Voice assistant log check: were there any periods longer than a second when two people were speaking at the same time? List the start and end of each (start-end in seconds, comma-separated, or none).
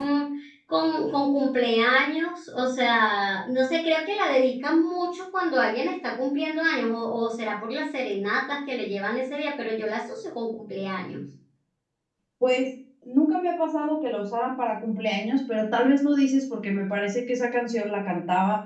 none